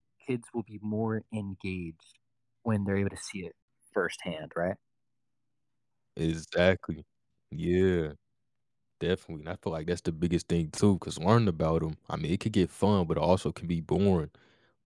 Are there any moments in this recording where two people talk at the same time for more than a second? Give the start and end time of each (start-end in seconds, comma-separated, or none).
none